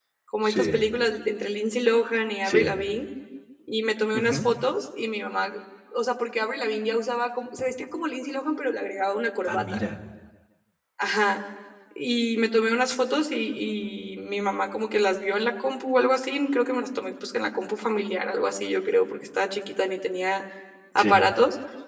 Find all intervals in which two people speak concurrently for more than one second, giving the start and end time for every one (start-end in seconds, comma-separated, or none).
none